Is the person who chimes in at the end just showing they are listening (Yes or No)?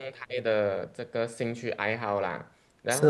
No